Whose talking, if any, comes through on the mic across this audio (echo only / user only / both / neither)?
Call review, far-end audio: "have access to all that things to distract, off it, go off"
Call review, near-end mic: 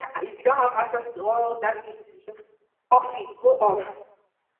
echo only